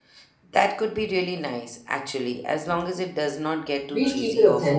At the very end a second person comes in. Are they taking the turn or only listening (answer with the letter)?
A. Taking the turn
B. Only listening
A